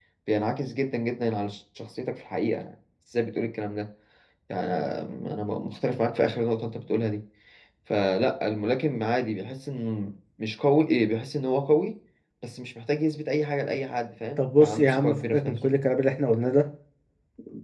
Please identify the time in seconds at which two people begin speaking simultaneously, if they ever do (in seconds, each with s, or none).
14.4 s